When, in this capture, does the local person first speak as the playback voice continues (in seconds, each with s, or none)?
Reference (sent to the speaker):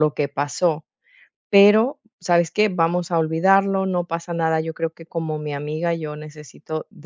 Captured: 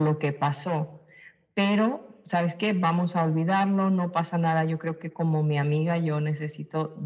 none